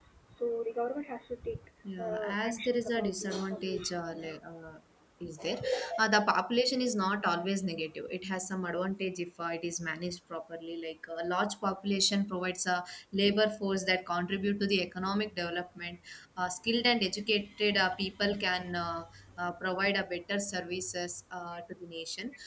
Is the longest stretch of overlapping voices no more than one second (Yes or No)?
No